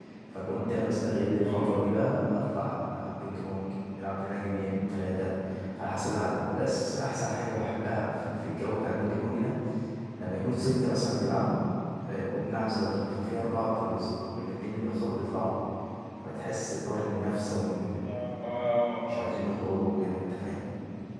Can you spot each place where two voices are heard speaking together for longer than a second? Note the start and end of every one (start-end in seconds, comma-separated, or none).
none